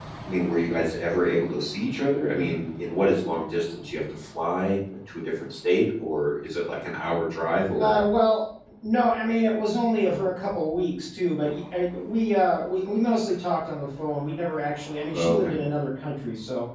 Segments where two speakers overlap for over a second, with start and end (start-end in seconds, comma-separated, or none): none